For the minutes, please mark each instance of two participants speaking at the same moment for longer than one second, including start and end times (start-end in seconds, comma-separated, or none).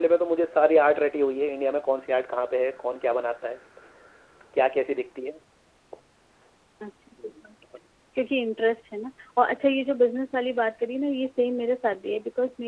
none